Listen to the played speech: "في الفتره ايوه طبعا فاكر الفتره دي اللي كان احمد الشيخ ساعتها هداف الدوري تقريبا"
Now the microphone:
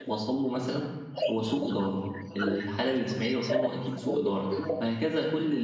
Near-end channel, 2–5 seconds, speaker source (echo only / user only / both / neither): both